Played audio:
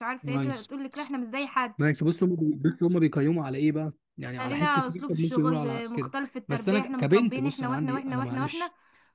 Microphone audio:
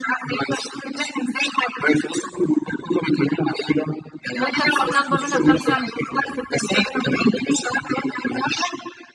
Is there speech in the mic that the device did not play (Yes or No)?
Yes